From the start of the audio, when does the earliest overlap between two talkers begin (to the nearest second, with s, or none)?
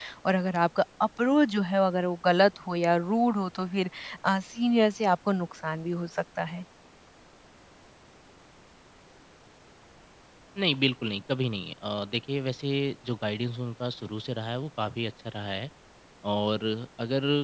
none